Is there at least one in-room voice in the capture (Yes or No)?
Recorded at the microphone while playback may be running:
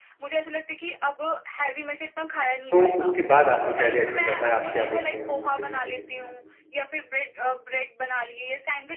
Yes